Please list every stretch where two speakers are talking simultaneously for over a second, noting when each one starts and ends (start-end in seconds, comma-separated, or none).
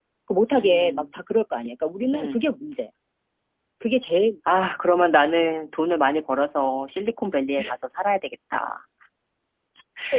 none